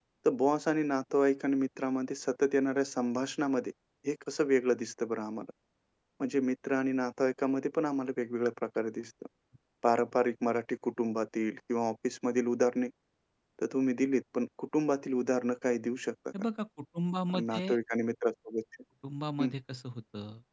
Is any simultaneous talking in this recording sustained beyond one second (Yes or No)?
No